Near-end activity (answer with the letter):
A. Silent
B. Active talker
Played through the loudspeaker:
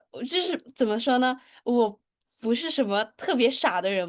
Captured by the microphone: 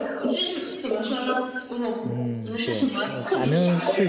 B